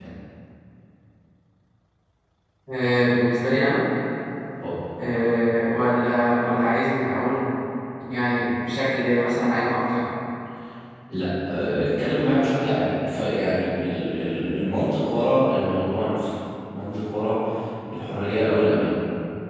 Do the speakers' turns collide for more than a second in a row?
No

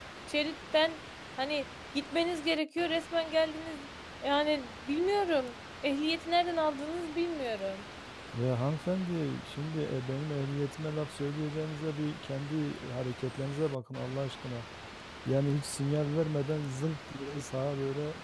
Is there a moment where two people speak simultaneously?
No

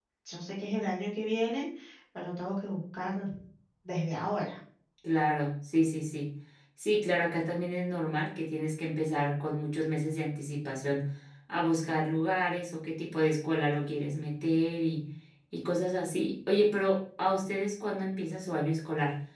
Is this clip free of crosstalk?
Yes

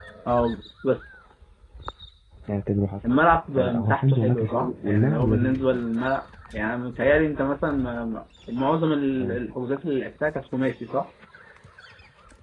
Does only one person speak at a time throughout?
No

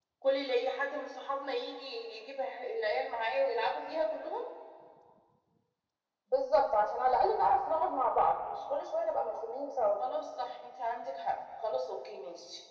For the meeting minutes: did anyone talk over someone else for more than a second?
No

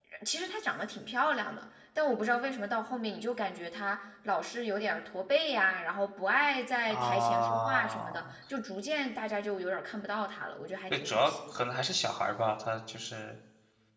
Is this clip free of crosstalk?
No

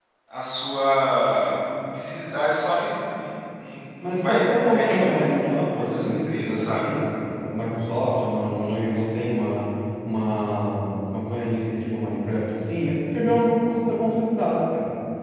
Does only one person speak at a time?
No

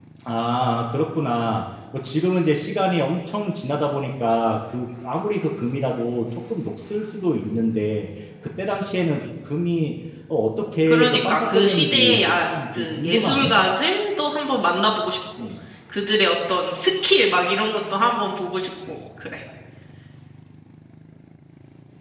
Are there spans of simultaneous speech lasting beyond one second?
Yes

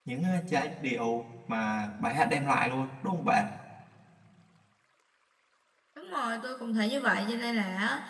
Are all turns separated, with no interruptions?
Yes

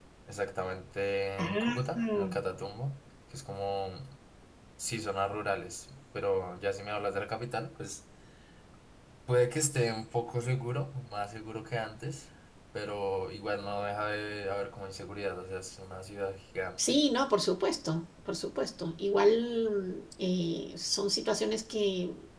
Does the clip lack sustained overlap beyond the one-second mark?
Yes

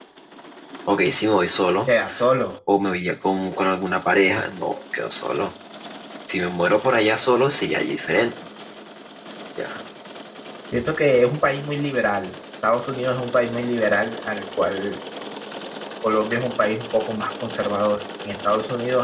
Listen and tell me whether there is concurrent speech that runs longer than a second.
No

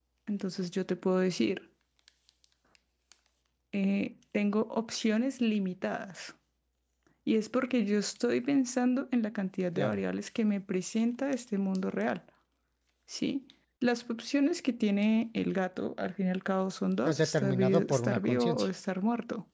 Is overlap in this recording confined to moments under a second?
No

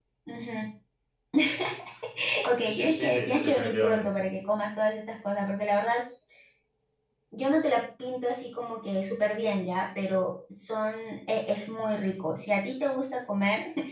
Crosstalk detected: Yes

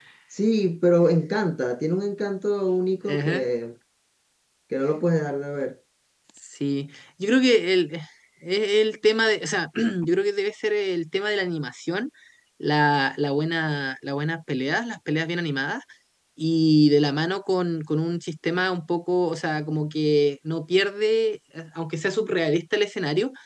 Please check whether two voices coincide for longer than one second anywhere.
No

